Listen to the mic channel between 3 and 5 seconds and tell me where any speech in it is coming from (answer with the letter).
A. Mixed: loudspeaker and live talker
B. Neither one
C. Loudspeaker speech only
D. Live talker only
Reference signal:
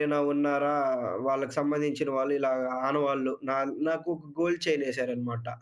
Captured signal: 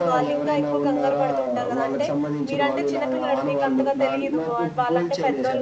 A